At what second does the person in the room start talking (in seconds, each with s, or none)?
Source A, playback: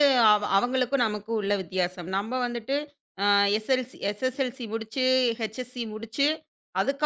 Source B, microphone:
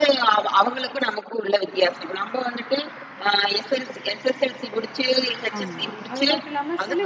5.6 s